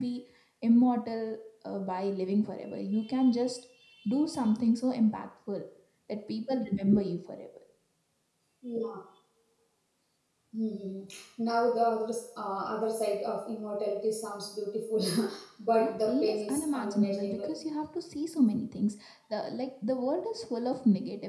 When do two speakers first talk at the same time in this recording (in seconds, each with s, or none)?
15.8 s